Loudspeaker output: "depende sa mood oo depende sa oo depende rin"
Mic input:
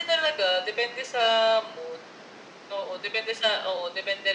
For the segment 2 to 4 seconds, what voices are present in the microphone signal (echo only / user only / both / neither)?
echo only